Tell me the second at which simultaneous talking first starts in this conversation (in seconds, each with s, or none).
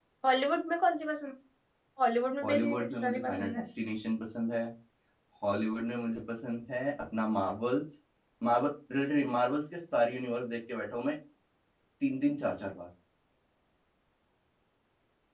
2.4 s